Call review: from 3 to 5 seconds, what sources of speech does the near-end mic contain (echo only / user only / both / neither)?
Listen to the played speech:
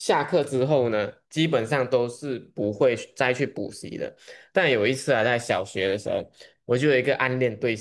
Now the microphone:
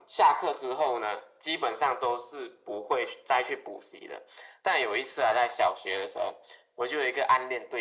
echo only